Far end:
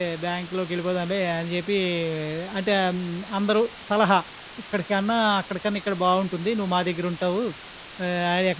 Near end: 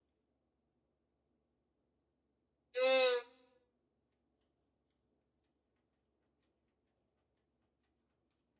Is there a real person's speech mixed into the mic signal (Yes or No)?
Yes